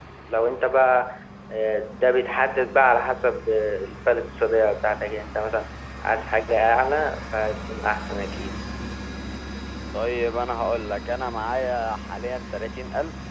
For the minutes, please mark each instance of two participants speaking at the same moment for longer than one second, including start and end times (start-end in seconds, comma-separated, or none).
none